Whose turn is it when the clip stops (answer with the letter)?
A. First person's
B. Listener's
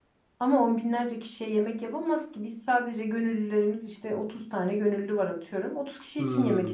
B